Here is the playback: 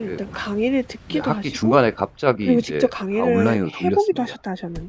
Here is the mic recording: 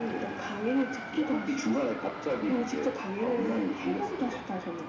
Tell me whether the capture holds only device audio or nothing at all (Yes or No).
Yes